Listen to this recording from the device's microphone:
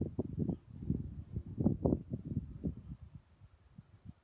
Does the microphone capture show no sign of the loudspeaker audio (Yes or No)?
Yes